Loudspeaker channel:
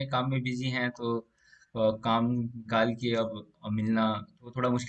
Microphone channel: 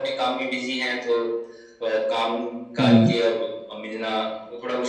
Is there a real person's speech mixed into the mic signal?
Yes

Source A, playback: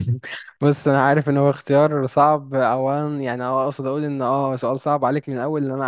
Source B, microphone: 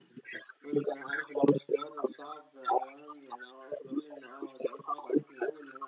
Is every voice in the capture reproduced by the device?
Yes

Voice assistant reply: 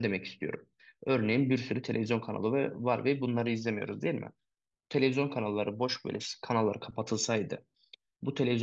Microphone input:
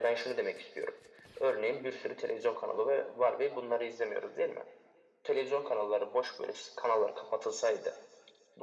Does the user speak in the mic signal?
No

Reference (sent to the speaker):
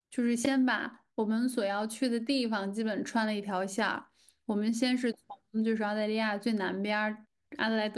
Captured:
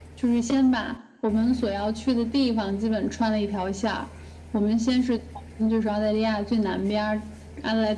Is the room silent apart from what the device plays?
Yes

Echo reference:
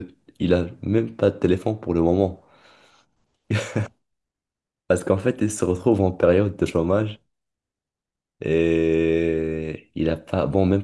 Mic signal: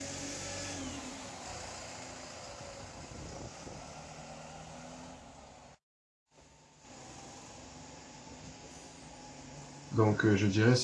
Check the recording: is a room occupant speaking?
Yes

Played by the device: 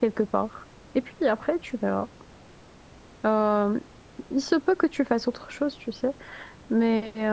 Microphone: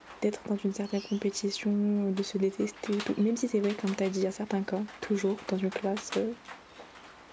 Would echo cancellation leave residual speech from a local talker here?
Yes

